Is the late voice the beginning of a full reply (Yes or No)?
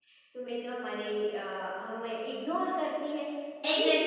Yes